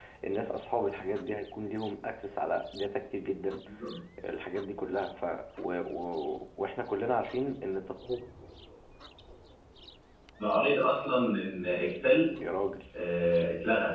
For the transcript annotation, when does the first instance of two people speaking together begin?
none

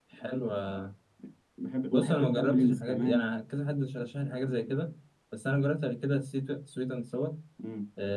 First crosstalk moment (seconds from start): 1.9 s

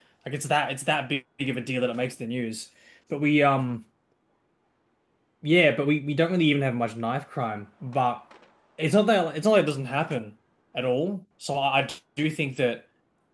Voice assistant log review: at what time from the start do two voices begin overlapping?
none

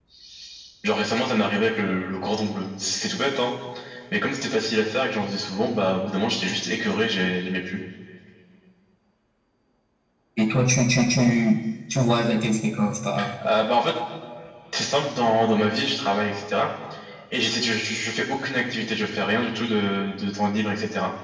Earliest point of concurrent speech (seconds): none

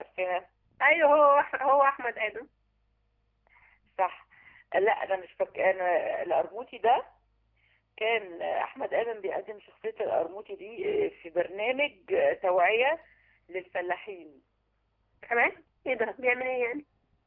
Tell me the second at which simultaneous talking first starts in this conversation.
none

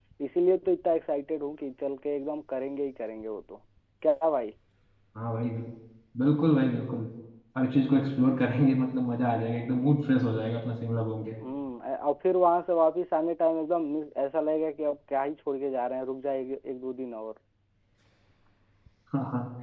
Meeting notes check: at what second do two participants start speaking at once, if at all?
none

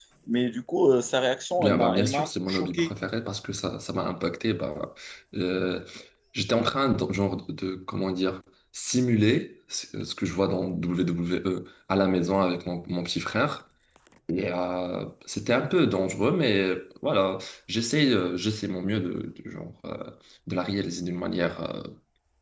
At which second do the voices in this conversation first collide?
1.6 s

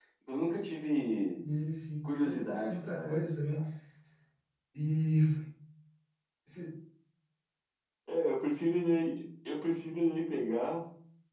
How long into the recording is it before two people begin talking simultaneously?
2.0 s

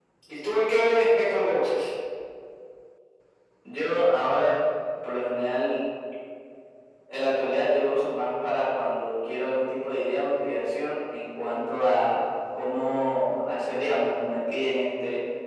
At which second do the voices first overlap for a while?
none

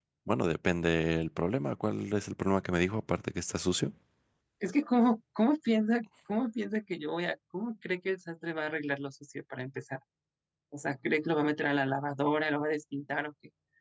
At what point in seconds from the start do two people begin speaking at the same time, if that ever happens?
none

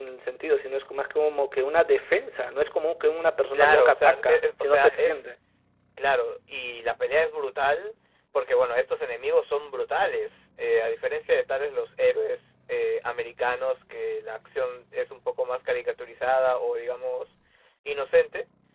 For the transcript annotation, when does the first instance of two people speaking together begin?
3.5 s

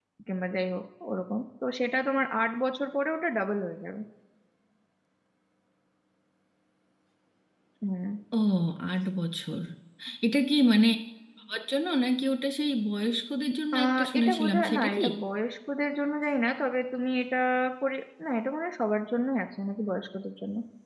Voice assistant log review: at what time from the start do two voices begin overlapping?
13.7 s

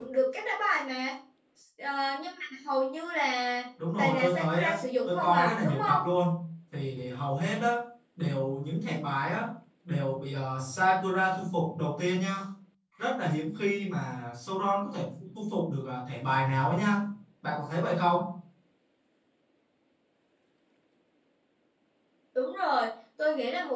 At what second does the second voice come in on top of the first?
3.8 s

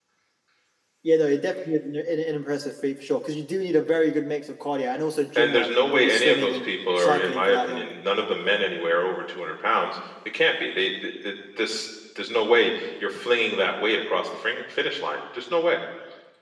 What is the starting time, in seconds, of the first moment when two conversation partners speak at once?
5.4 s

